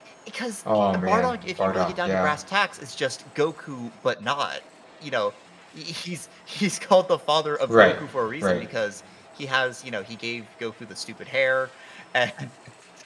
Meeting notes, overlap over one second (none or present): present